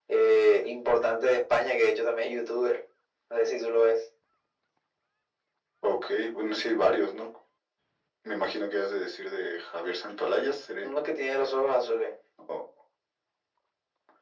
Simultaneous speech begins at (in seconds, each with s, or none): none